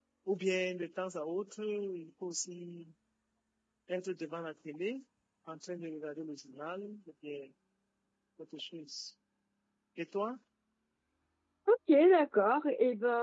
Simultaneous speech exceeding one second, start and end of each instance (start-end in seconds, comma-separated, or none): none